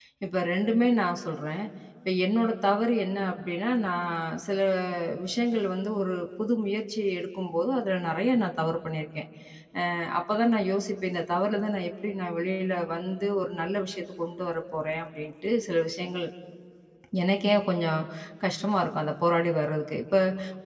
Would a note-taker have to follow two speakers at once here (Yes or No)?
No